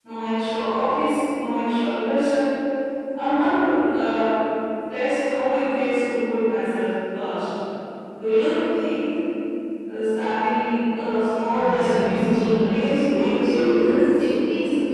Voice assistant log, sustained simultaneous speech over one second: present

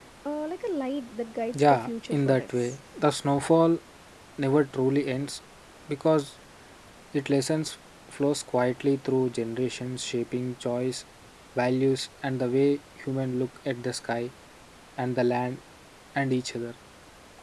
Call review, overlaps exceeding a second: present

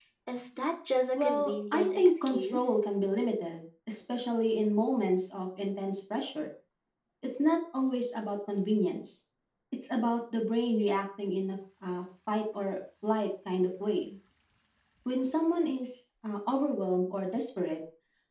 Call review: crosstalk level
present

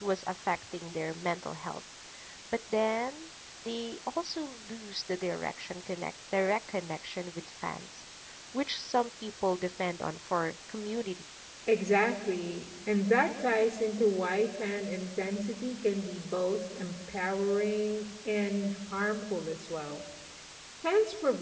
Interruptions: none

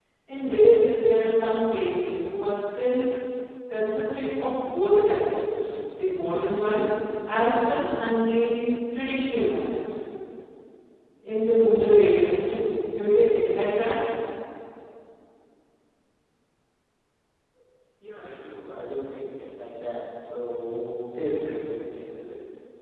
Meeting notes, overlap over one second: none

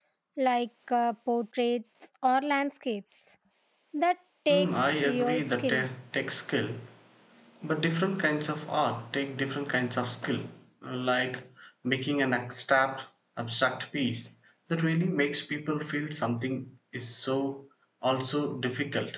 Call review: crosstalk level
present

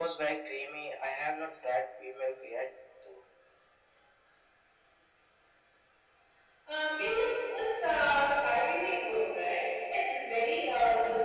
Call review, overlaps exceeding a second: none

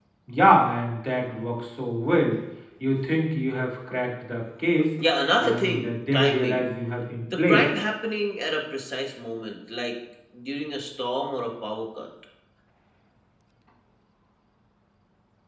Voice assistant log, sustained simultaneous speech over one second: present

